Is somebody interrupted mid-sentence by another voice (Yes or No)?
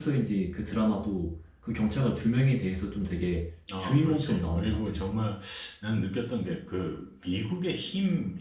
Yes